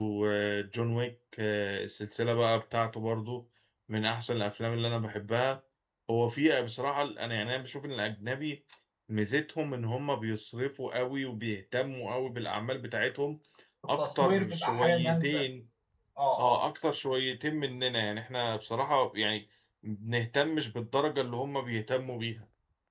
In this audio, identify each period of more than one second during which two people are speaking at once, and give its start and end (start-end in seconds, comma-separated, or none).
14.0-15.4